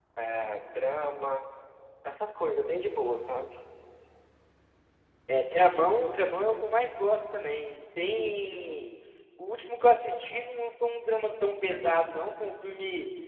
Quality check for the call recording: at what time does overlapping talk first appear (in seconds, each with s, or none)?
none